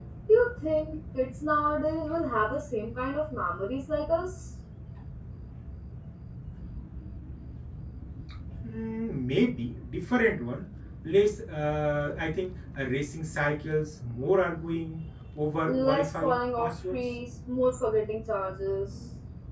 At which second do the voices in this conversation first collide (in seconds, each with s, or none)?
15.7 s